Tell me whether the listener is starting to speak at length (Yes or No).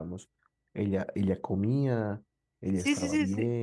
Yes